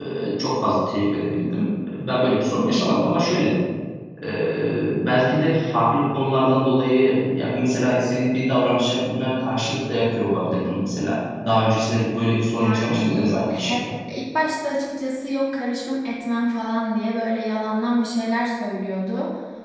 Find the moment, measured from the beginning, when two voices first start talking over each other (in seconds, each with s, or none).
12.6 s